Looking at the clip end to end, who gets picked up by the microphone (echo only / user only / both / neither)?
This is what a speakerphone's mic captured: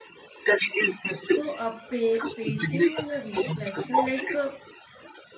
both